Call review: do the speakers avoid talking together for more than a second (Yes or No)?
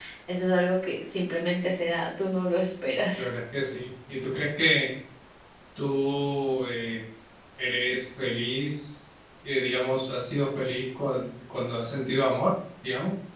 Yes